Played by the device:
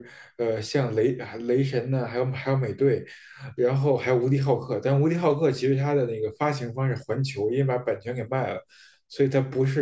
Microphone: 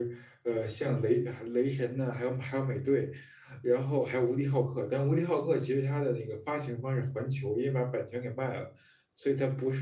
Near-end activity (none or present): none